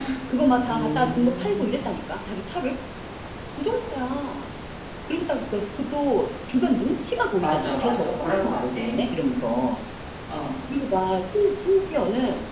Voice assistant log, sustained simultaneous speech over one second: present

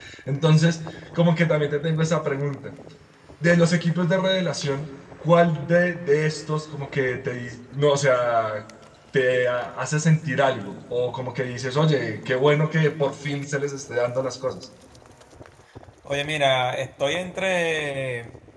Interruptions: none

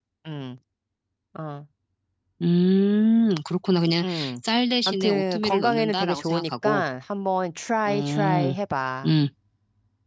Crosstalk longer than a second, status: present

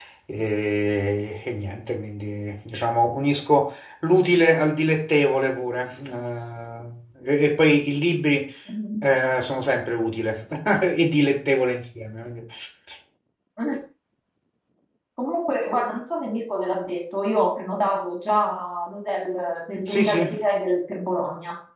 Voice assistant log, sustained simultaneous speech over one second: none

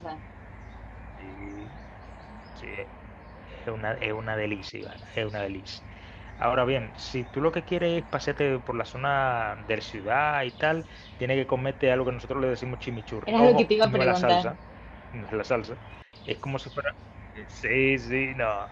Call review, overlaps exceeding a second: present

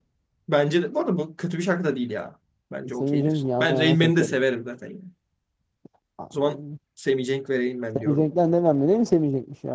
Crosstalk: present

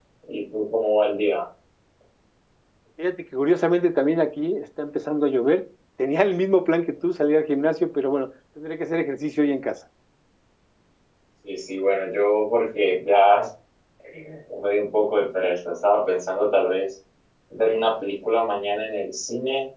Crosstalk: none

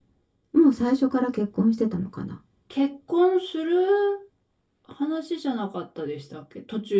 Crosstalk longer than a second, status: none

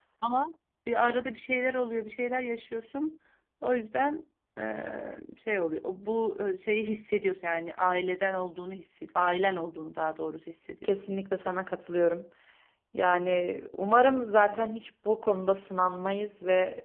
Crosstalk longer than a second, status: none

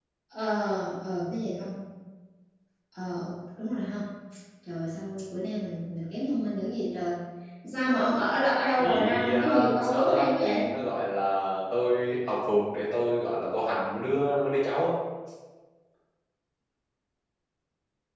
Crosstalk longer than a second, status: present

